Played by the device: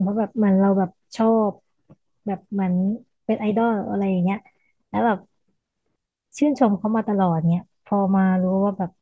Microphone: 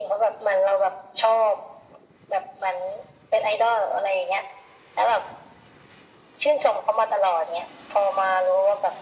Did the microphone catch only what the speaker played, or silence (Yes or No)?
Yes